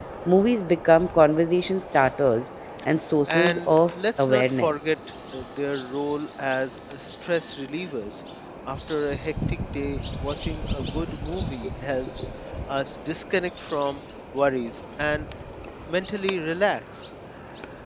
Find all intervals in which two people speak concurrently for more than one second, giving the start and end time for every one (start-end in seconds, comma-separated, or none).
3.3-4.9